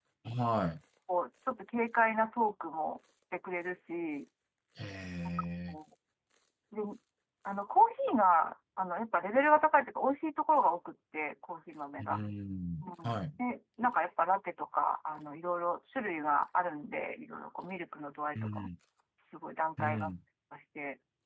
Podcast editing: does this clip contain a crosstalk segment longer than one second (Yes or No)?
No